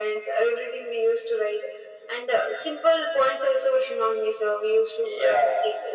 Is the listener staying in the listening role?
No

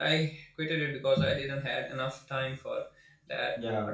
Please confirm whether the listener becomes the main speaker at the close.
No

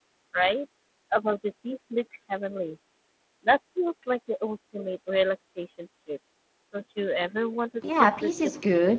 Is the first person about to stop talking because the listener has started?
Yes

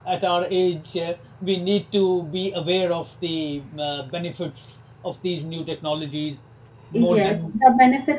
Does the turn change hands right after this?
Yes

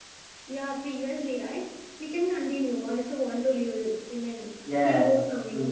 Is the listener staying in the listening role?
No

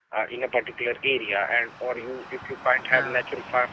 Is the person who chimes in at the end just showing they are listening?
Yes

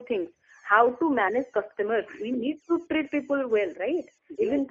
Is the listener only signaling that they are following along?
Yes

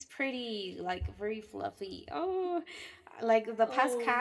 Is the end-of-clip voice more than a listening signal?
No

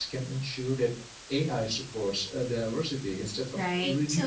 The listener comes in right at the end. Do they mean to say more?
Yes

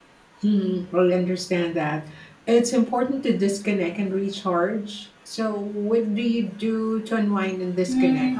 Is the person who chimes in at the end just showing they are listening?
No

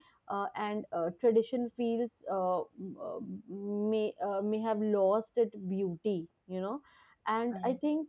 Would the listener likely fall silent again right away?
Yes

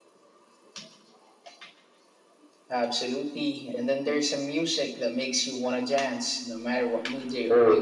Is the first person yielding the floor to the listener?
Yes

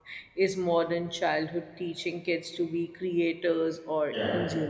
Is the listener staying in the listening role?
Yes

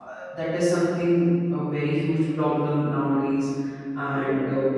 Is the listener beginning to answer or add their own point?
No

